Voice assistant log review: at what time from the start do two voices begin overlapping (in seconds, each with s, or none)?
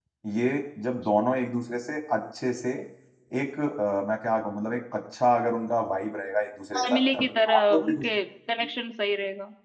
6.7 s